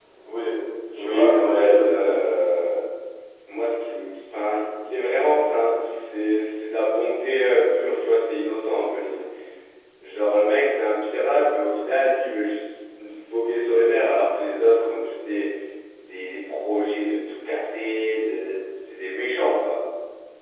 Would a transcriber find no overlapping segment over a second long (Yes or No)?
No